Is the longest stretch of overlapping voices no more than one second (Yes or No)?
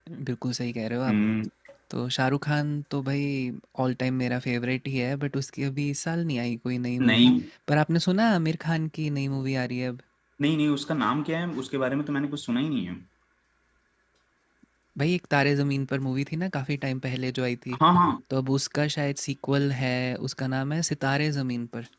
Yes